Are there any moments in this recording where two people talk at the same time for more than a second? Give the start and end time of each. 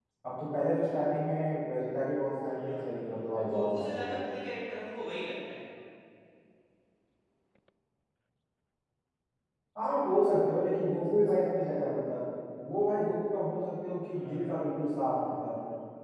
2.5-4.3

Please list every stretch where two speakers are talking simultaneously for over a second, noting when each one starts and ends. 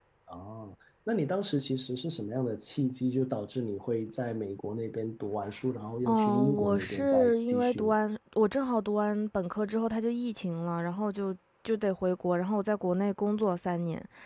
6.0-7.9

